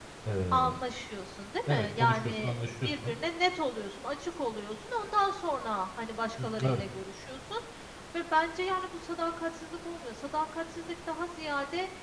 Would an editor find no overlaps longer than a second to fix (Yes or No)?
No